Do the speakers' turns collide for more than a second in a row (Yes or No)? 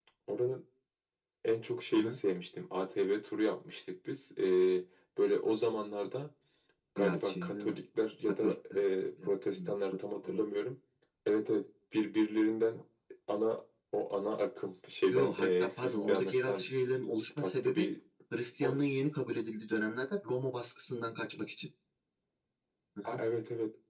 Yes